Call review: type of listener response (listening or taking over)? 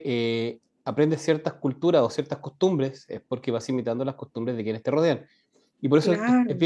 listening